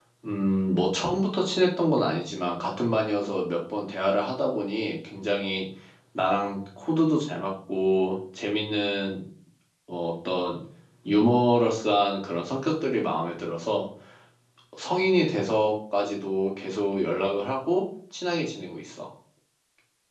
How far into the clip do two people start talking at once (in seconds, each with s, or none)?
none